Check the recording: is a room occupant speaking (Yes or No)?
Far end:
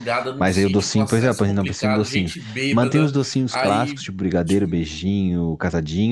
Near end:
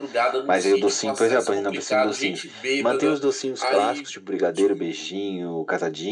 No